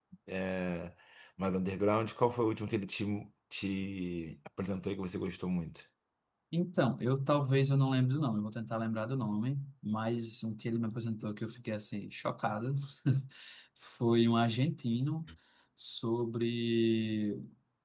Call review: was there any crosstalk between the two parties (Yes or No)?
No